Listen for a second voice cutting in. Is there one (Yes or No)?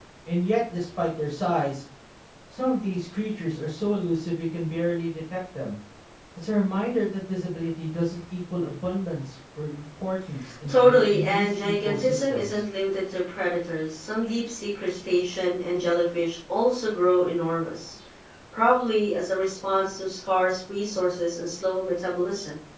Yes